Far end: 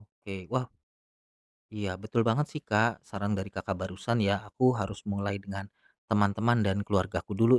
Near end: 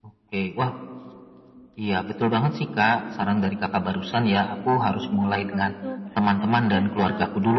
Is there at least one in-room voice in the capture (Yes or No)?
Yes